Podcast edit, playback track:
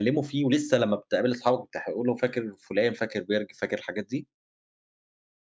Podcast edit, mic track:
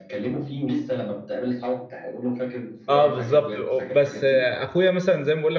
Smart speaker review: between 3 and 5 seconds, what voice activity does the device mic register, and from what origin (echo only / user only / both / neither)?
both